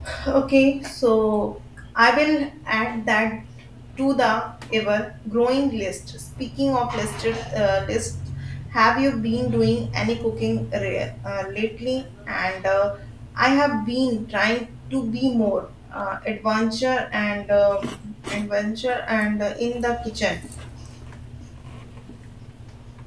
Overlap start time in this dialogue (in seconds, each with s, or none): none